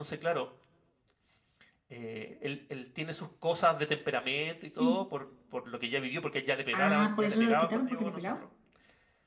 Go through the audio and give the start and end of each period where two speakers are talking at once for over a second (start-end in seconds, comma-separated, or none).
6.7-8.4